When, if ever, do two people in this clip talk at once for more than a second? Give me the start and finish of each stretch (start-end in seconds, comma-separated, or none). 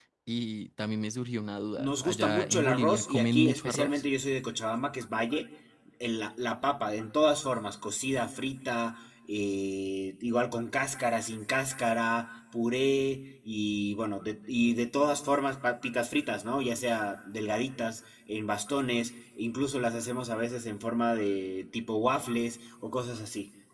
1.8-4.0